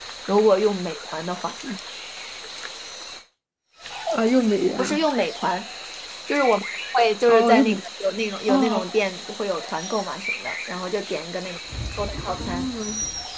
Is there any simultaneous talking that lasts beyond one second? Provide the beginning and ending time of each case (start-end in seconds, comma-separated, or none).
none